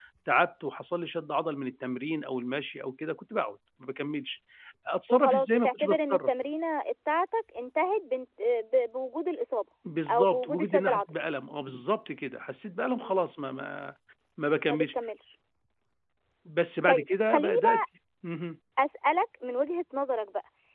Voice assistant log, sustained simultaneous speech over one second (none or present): present